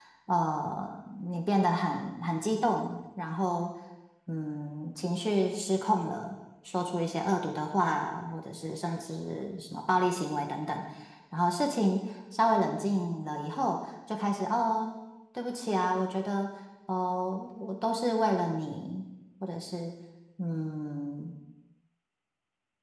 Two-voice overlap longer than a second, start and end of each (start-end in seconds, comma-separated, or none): none